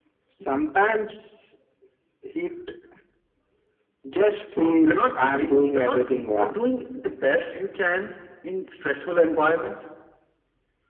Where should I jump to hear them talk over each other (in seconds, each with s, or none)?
4.8 s